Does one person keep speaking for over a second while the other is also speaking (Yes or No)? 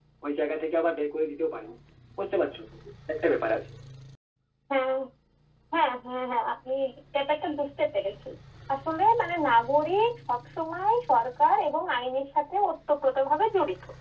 No